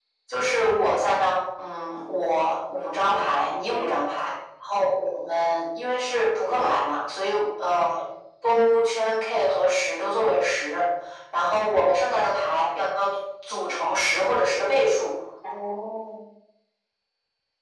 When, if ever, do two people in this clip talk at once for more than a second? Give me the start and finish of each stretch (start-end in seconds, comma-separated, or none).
none